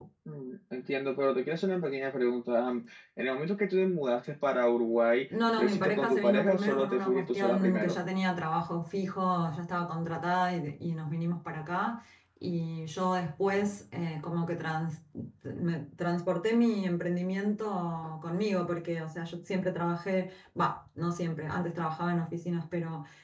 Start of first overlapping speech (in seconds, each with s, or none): 5.3 s